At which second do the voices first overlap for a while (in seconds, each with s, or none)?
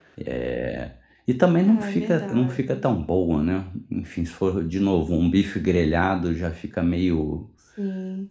1.6 s